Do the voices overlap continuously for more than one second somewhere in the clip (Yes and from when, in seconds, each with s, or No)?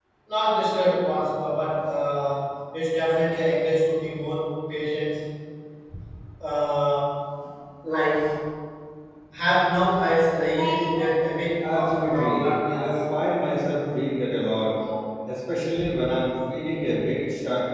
Yes, from 11.6 s